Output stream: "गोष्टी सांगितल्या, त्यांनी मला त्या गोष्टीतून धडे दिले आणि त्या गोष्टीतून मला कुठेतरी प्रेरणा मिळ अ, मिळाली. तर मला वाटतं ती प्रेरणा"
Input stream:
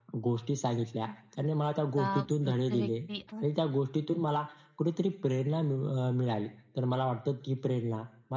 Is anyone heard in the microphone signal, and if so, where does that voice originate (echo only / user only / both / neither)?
both